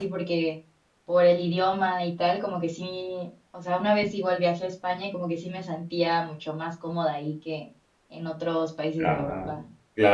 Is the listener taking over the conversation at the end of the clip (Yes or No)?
Yes